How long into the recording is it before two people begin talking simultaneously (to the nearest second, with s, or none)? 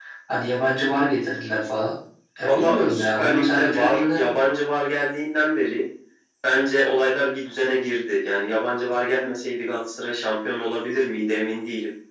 2 s